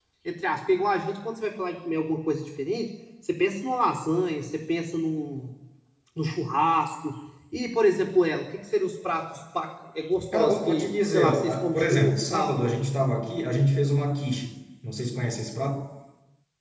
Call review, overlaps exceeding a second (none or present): present